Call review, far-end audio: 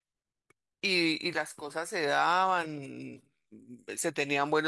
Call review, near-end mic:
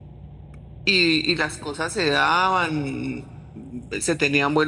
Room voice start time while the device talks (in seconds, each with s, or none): none